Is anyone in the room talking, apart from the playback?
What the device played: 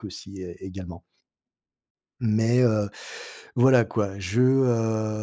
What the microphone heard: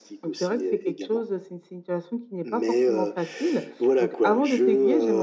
Yes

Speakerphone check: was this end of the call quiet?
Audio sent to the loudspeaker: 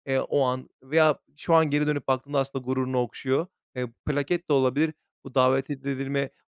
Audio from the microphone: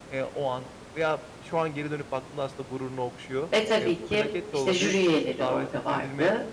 No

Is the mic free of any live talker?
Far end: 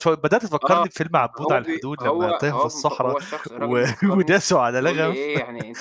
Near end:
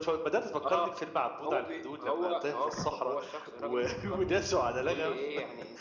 Yes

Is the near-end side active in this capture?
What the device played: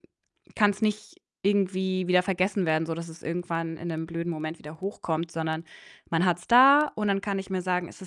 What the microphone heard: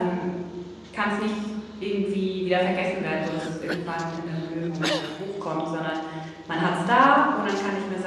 No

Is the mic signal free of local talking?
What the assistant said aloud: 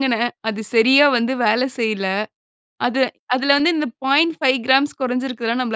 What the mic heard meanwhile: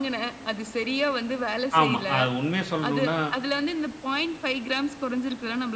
No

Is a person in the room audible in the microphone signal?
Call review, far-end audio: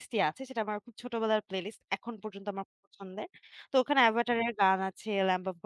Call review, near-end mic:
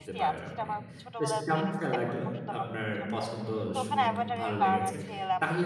Yes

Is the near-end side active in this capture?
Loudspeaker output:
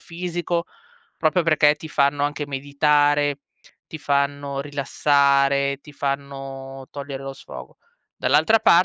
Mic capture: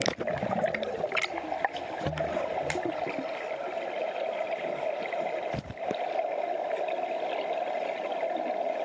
No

